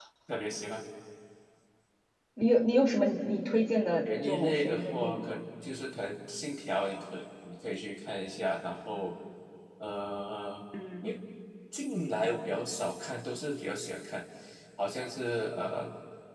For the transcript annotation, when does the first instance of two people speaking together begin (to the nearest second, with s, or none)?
4 s